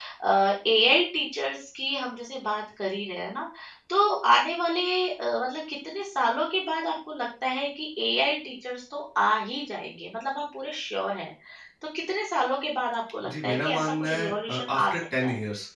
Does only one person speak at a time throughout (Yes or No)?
No